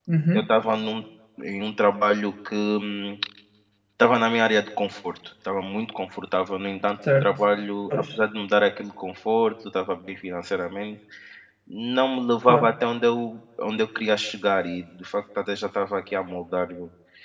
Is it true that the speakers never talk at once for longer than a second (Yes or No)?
Yes